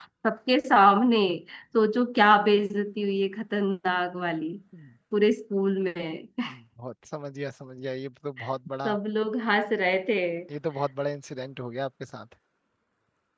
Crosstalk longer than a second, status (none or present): none